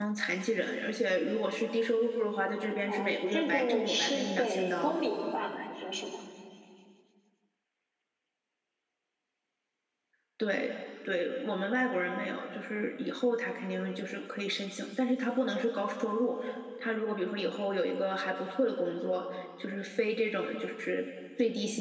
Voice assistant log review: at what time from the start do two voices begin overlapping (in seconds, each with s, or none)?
2.8 s